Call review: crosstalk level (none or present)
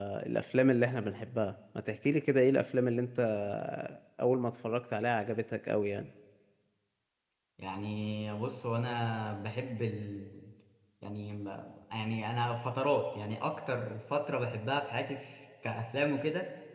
none